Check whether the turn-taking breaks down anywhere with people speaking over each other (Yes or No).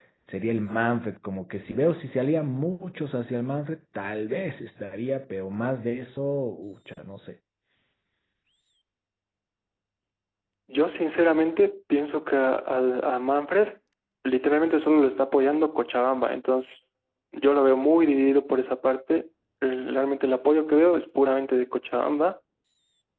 No